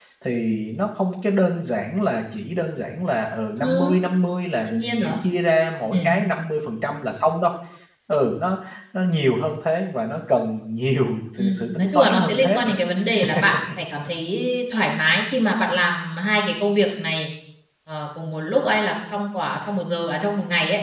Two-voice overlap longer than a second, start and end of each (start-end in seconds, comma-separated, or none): 11.4-12.8